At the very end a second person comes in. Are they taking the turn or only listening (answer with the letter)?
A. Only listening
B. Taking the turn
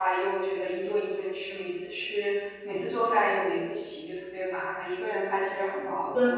B